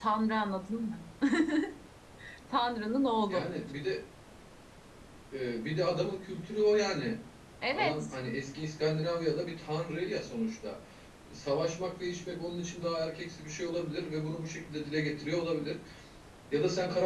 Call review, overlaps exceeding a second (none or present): none